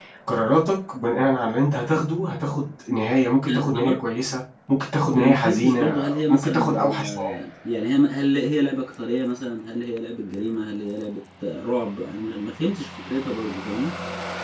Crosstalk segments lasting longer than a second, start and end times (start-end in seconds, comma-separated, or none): 5.2-7.5